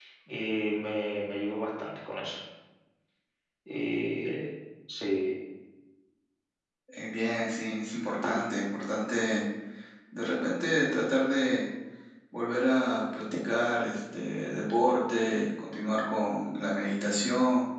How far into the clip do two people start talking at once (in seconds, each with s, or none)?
none